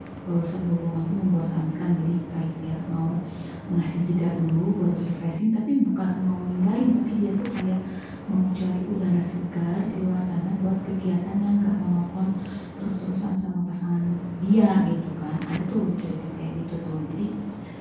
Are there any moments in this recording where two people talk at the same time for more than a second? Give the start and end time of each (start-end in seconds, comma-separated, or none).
none